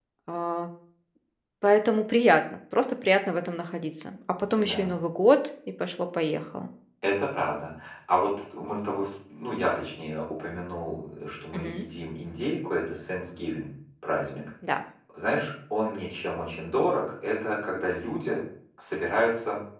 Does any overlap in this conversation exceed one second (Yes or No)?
No